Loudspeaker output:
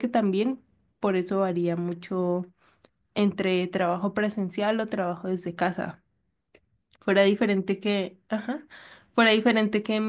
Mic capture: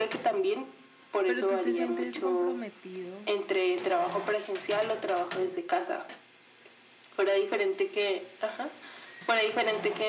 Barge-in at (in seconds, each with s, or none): 1.2 s